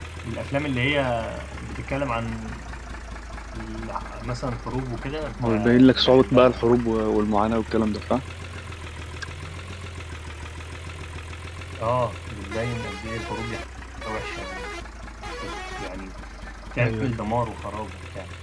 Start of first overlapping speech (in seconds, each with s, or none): 5.4 s